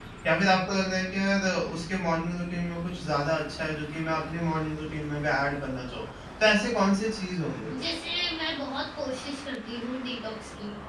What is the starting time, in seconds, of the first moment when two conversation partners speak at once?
none

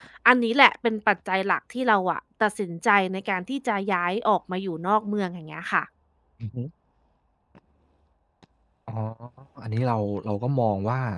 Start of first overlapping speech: none

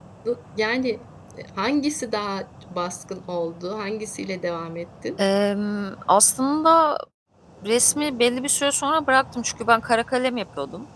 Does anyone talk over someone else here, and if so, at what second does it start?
none

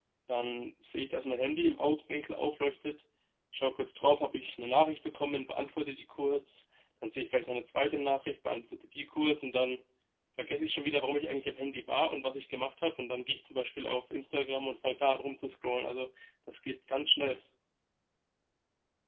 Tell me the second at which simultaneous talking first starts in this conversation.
none

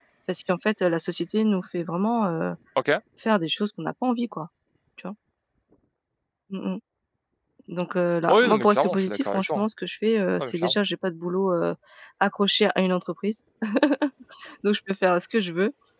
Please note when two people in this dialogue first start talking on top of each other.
8 s

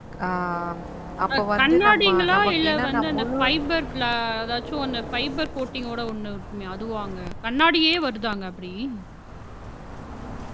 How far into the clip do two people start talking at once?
1 s

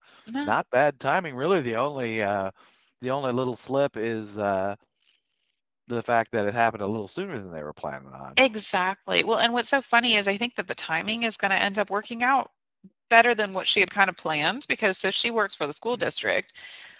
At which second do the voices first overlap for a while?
none

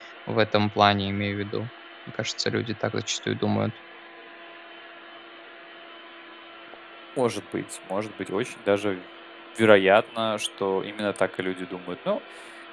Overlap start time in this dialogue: none

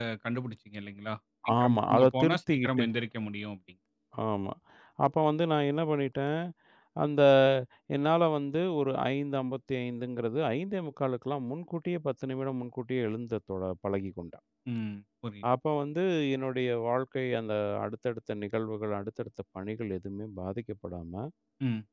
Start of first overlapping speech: 1 s

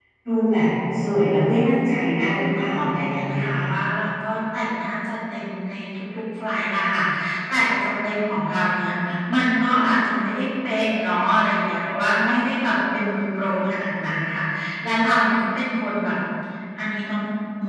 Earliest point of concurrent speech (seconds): 2 s

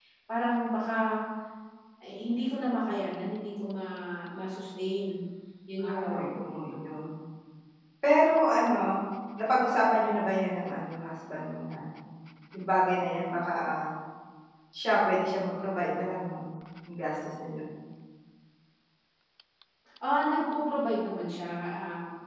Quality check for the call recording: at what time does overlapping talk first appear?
6 s

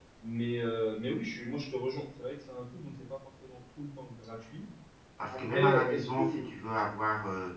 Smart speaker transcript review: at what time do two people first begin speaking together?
5 s

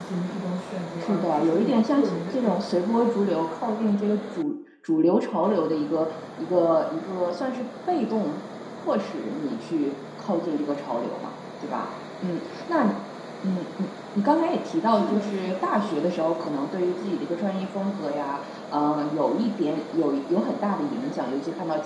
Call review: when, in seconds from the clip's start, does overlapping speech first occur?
1 s

